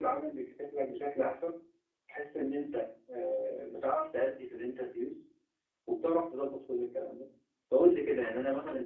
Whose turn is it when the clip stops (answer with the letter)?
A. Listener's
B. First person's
B